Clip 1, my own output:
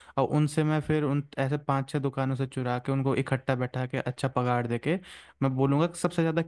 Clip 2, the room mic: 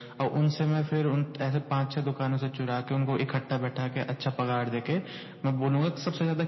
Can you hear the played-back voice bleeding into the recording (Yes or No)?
Yes